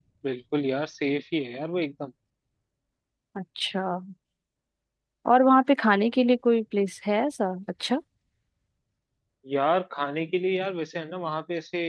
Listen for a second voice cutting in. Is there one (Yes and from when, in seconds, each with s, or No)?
No